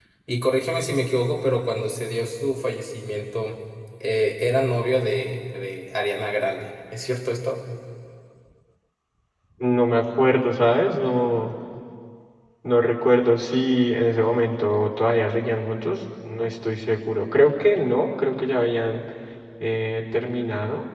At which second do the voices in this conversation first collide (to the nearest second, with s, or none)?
none